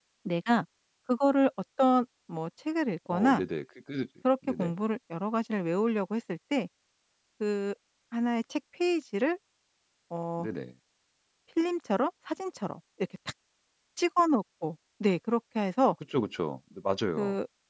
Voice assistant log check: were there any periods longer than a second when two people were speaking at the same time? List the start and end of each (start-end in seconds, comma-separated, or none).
none